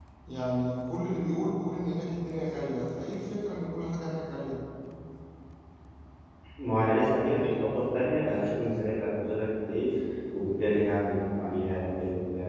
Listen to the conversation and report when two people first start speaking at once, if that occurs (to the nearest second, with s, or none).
none